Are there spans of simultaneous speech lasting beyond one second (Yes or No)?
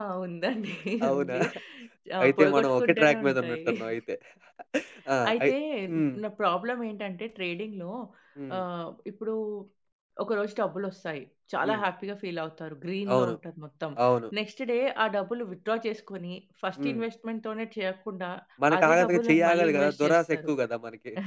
Yes